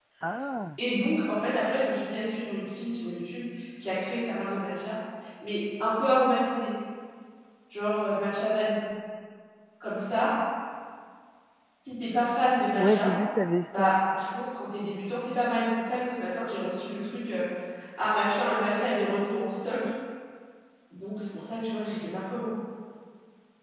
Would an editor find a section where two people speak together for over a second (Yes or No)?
No